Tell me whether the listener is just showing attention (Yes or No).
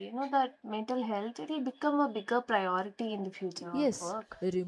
No